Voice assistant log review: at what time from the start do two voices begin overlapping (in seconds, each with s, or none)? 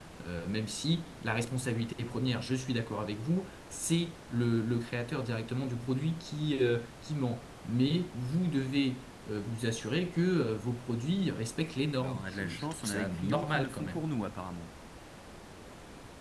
11.9 s